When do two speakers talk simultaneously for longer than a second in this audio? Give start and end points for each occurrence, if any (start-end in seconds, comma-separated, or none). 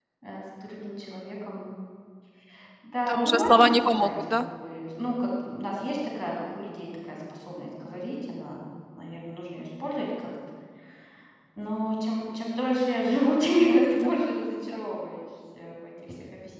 3.1-4.4